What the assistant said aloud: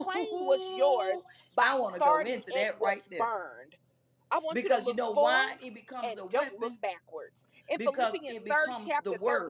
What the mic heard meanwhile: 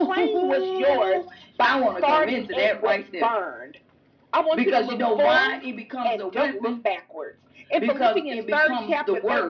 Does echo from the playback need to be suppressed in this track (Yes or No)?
Yes